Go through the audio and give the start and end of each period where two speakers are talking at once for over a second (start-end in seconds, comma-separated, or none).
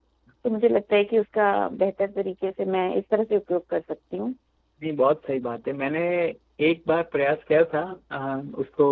none